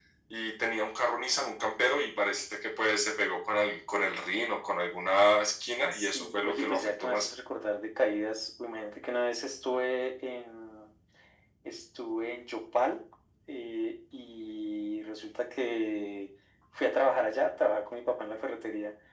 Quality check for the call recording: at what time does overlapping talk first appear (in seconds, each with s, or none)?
5.9 s